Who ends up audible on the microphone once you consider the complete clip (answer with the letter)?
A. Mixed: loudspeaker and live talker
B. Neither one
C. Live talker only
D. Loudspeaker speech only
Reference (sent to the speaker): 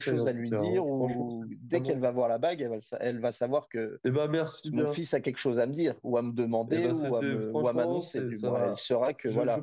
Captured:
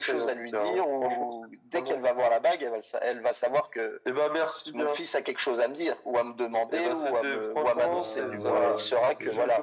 A